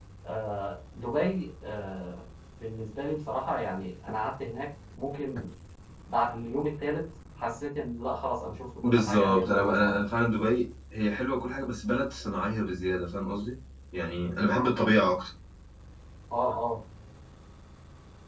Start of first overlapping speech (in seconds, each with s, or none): 8.8 s